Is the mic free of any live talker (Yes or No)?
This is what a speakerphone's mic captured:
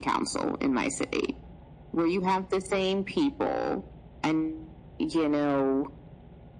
Yes